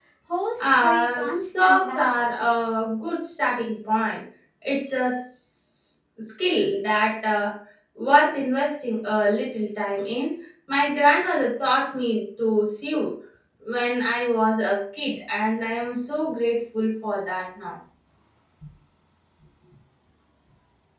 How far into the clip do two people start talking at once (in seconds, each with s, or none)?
0.6 s